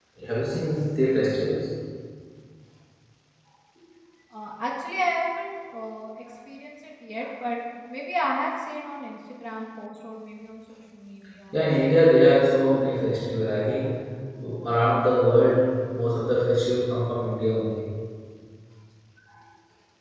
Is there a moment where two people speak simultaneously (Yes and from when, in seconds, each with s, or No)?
No